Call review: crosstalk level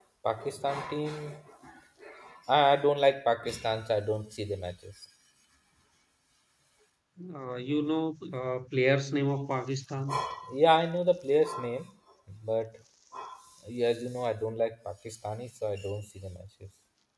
none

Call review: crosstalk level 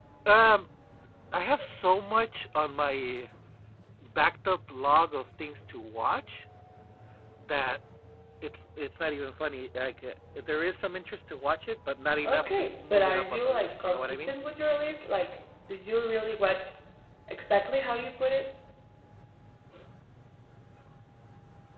present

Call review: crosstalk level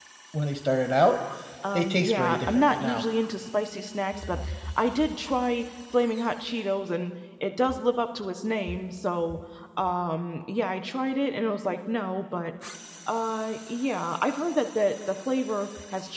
present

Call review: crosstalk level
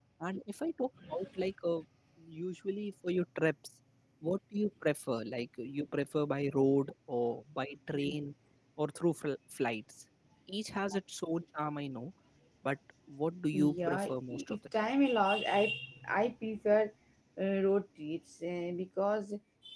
present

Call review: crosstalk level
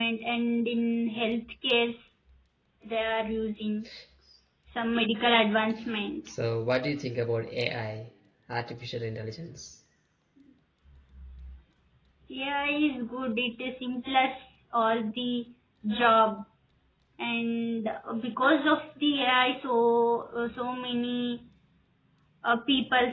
none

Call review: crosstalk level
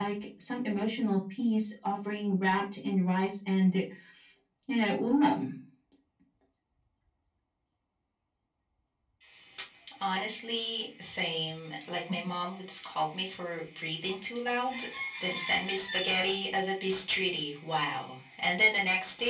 none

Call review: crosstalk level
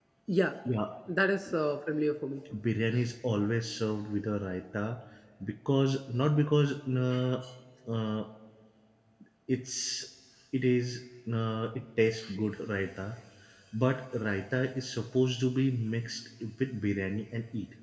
none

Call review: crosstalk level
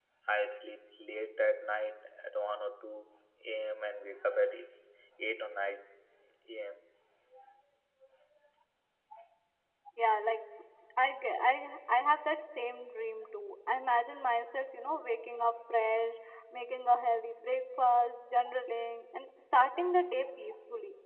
none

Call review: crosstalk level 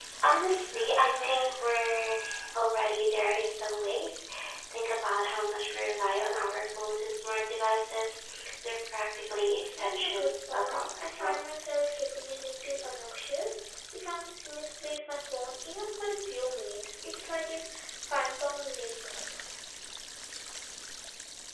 present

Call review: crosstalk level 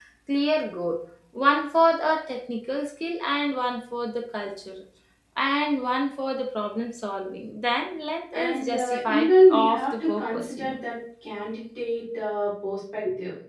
present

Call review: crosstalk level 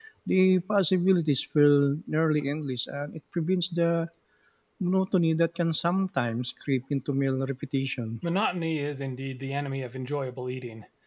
none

